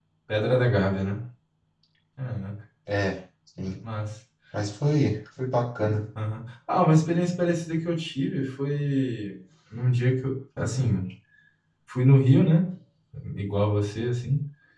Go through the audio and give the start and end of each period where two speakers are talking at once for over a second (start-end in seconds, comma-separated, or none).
none